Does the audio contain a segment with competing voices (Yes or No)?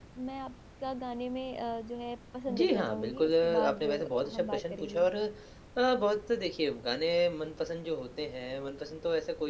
Yes